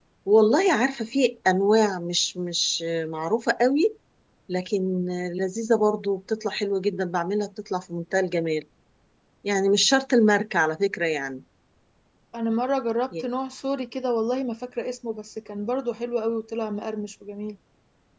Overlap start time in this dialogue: none

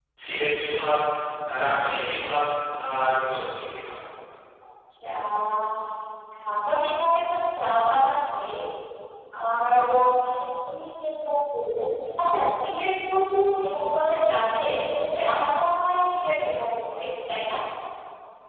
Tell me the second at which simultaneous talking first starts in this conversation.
none

